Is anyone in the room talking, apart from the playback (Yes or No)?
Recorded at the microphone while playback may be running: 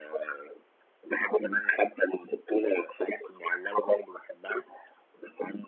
No